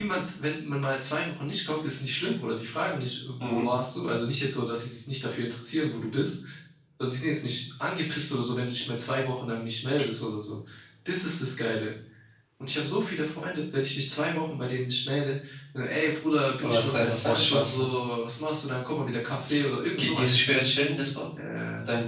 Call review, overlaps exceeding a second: present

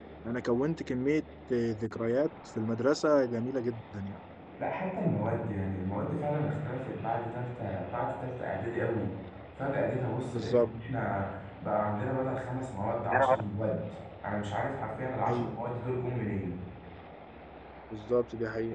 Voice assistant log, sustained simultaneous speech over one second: none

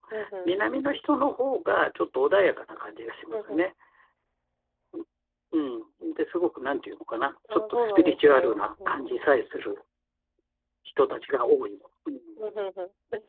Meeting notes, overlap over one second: present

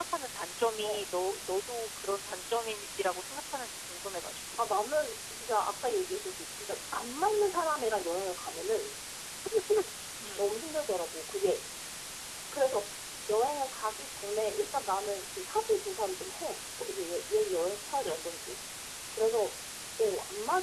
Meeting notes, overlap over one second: none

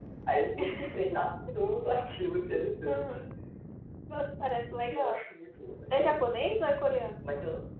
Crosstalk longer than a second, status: none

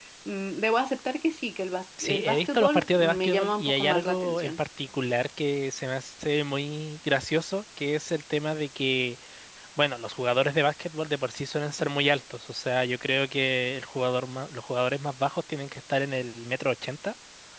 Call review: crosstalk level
present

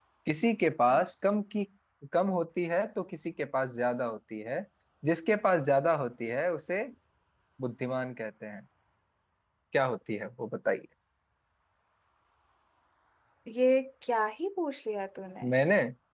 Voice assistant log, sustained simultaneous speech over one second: none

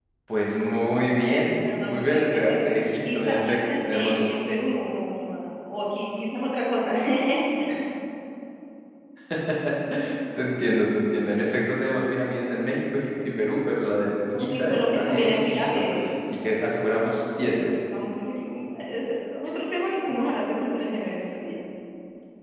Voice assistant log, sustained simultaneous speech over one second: present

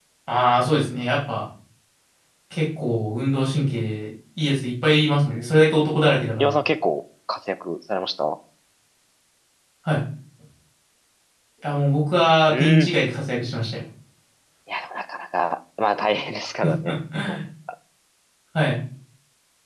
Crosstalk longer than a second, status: none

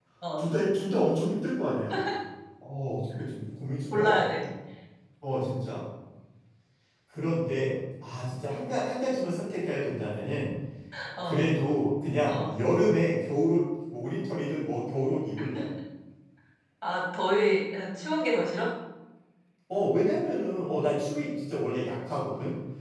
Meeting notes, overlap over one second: none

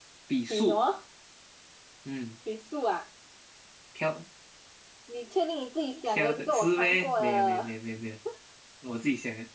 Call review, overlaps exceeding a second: present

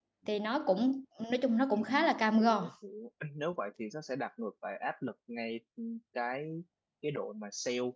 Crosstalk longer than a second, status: none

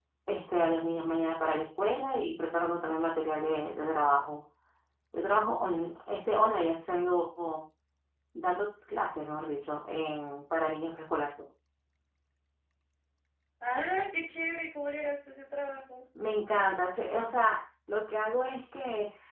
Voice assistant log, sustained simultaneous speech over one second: none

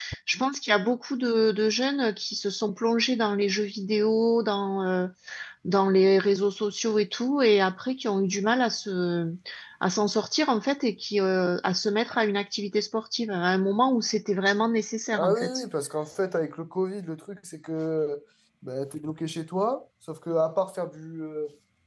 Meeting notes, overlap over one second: none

